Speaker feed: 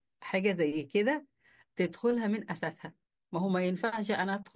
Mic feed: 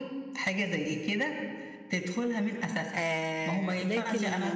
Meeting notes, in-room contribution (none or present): present